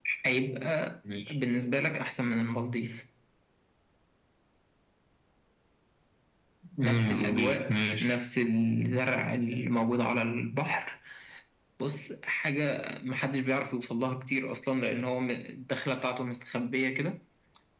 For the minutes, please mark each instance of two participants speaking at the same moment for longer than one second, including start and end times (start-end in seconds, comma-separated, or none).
6.8-8.2